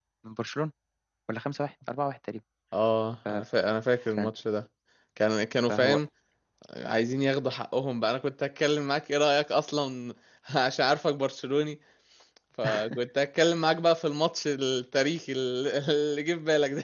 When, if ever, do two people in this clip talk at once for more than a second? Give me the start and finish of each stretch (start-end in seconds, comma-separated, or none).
none